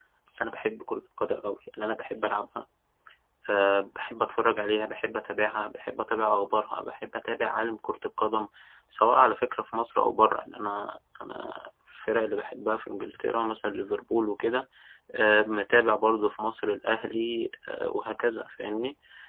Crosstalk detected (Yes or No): No